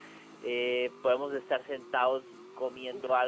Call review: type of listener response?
listening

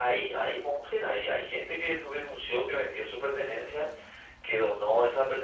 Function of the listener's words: listening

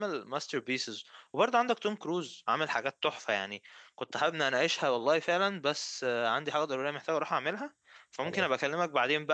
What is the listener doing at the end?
listening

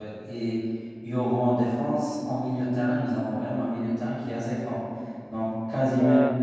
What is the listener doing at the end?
listening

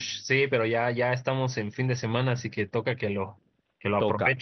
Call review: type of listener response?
taking over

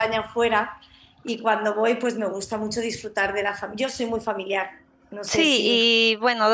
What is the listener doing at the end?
taking over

